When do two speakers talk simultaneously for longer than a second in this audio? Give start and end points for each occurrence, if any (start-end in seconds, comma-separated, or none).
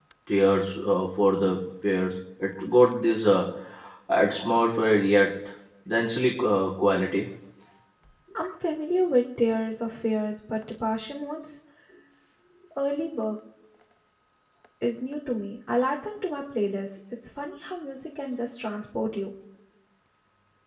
none